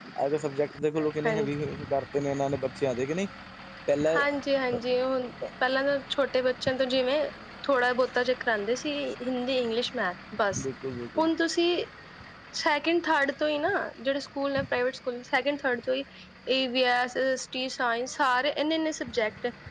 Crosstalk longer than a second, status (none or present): none